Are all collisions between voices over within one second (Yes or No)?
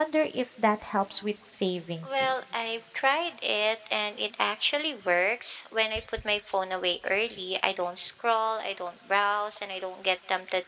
Yes